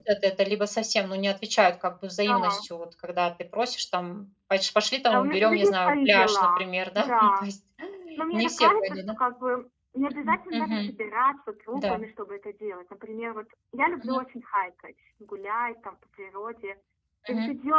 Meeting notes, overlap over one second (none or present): present